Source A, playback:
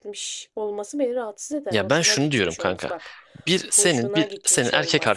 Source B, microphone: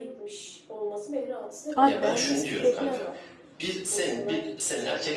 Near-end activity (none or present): present